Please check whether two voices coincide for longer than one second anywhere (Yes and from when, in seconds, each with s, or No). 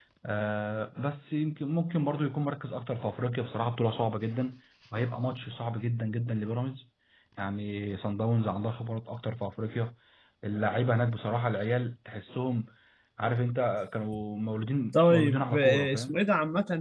Yes, from 14.9 s